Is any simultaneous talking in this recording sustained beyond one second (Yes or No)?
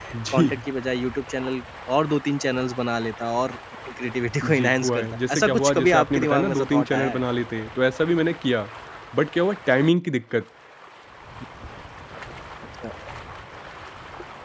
Yes